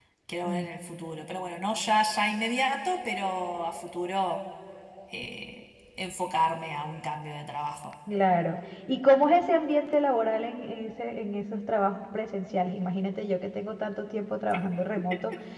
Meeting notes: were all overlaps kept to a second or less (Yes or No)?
Yes